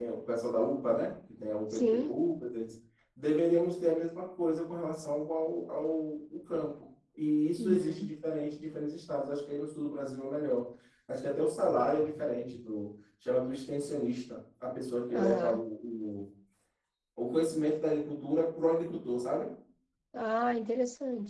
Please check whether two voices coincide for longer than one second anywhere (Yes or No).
No